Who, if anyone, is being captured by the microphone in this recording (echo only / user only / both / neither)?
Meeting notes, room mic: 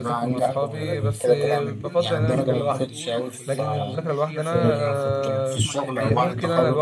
both